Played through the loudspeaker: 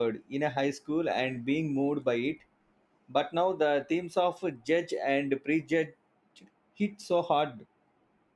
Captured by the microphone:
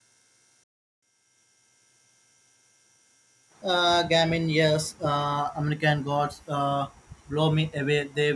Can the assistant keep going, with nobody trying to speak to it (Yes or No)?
No